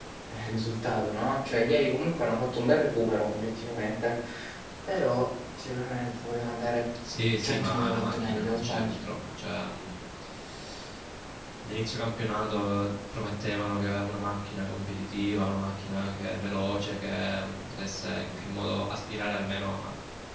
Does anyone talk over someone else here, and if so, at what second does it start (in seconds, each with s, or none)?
7.4 s